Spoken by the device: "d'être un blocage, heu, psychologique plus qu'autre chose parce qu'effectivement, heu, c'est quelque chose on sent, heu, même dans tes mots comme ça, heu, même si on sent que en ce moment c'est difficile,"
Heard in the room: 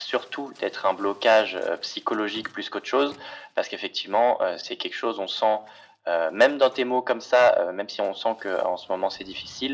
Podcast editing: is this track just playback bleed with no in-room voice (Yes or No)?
Yes